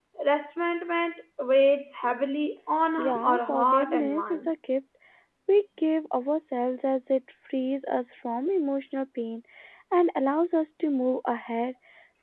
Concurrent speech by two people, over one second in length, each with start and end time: 3.0-4.5

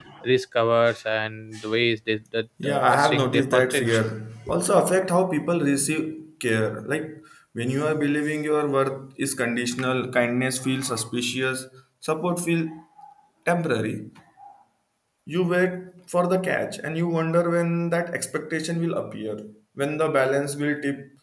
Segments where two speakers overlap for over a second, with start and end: 2.6-3.9

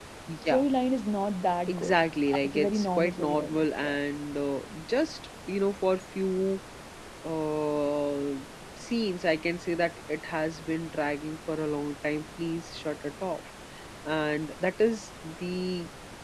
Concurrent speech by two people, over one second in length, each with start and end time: 2.4-4.0

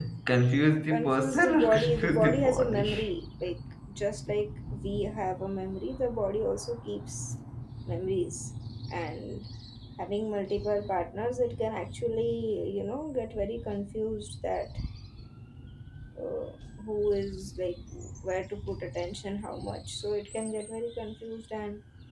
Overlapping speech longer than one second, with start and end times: 0.9-2.9

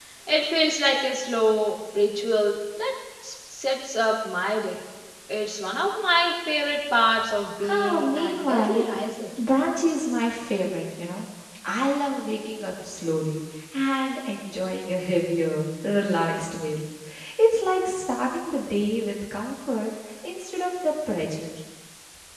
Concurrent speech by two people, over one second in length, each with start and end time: 7.6-8.8

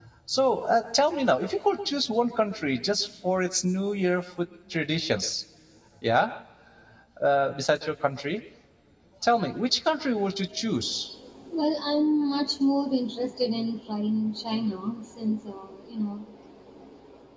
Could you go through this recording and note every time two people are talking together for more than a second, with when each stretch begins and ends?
none

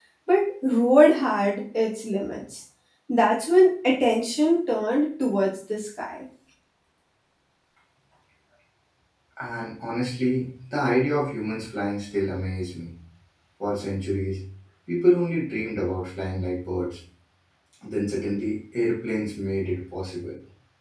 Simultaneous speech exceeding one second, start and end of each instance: none

